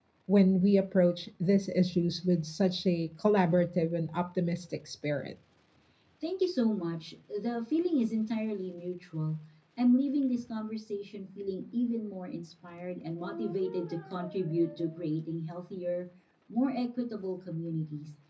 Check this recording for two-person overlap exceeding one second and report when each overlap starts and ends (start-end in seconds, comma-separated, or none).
none